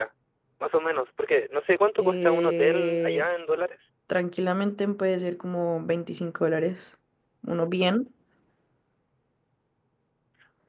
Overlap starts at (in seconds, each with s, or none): 2.0 s